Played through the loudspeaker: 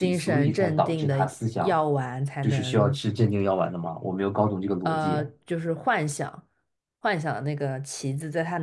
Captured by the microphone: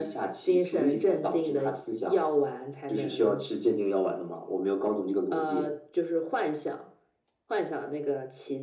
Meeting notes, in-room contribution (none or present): none